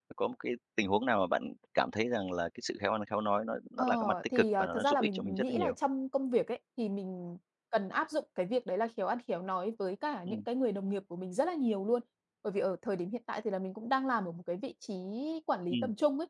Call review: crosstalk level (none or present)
present